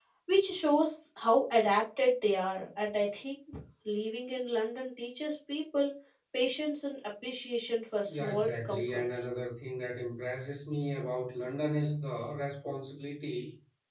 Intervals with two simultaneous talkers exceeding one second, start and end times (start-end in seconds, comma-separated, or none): 8.1-9.3